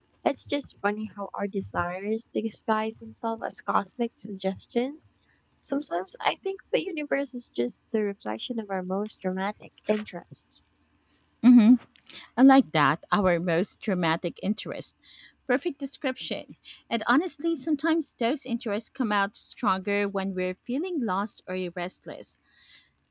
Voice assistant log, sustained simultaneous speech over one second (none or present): none